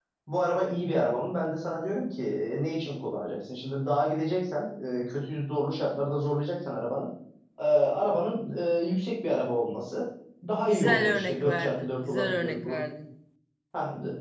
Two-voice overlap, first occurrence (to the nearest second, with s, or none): 11 s